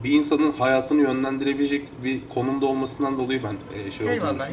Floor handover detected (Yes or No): Yes